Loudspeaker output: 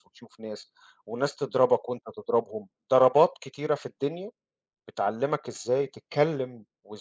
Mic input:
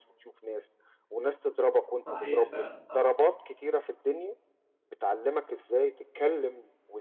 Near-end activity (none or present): present